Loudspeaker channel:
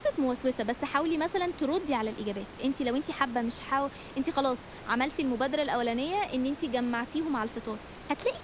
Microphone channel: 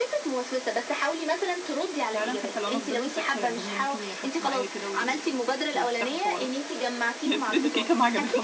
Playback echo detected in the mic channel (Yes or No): Yes